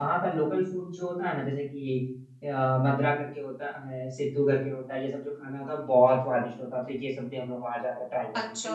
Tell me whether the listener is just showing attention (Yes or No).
No